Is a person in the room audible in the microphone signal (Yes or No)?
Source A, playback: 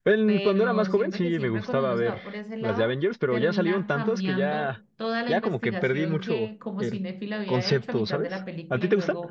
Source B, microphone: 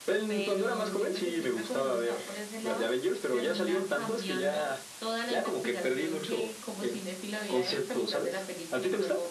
No